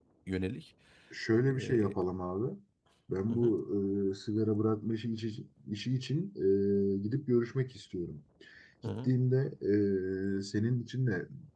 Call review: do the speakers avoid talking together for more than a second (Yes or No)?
Yes